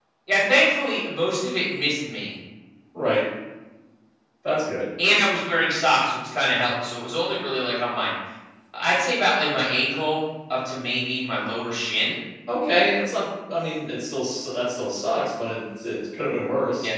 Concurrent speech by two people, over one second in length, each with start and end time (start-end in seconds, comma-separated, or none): none